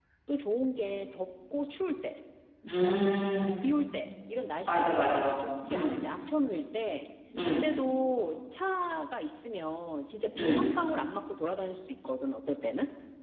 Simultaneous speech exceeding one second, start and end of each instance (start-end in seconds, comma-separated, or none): 4.7-6.0